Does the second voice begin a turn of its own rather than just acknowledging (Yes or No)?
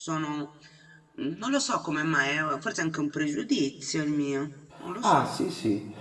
Yes